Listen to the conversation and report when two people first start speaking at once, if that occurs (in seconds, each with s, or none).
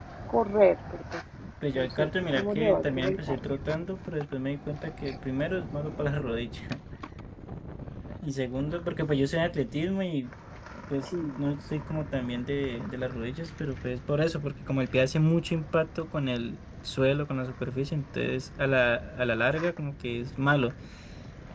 1.7 s